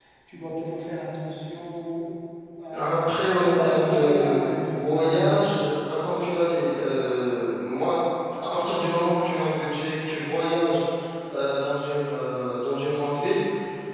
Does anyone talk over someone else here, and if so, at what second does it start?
2.7 s

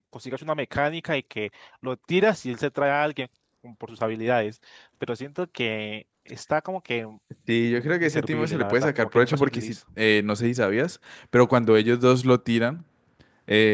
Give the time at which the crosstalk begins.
7.6 s

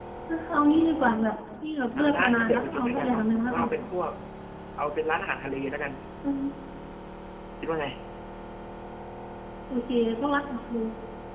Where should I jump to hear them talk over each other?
2.0 s

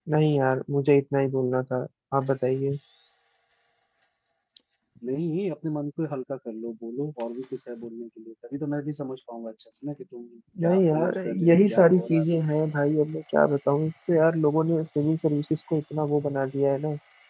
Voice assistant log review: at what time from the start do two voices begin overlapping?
10.6 s

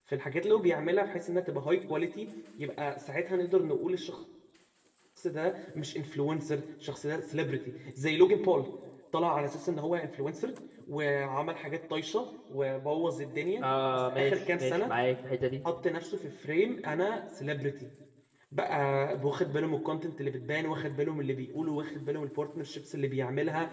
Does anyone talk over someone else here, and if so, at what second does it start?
13.6 s

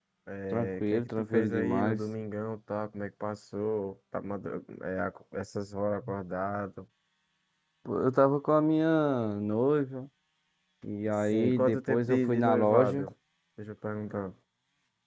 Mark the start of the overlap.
0.5 s

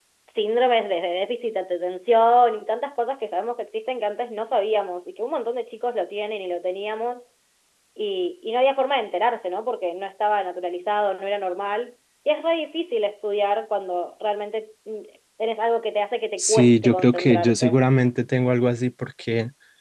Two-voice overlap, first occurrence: 16.4 s

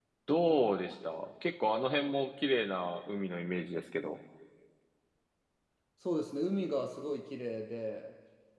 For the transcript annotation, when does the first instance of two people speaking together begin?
none

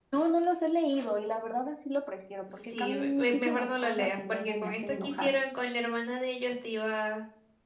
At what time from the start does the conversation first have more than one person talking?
2.6 s

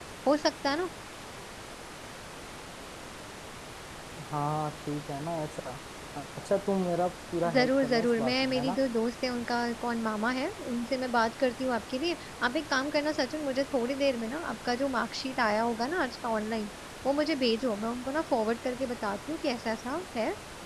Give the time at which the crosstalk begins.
7.4 s

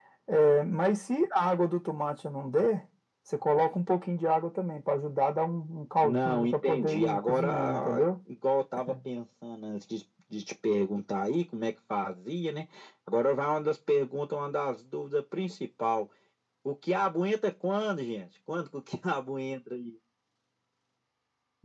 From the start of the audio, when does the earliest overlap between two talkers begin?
6.0 s

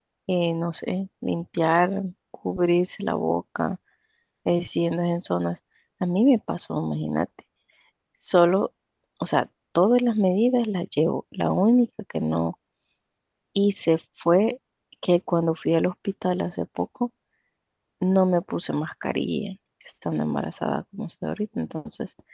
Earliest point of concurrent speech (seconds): none

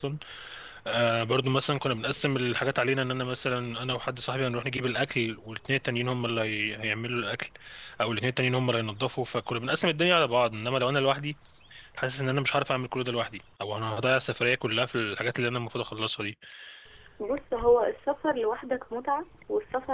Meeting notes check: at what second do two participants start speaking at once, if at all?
none

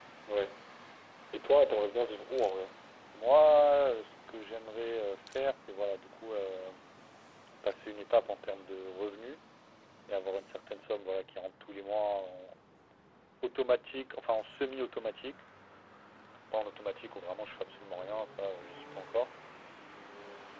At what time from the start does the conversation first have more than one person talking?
none

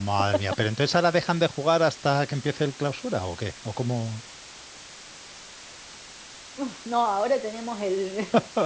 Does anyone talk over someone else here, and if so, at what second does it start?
none

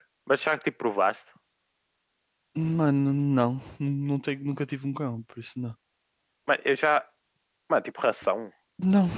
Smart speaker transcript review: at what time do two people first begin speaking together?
none

